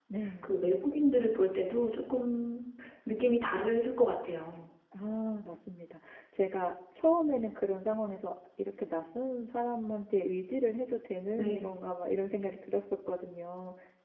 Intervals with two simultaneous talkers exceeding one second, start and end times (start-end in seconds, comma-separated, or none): none